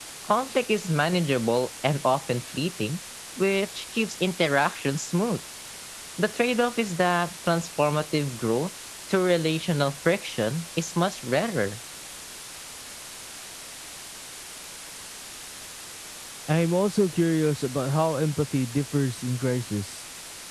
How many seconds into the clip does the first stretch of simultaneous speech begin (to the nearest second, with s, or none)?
none